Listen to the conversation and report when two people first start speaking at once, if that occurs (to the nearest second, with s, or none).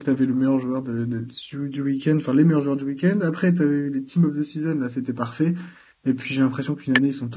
none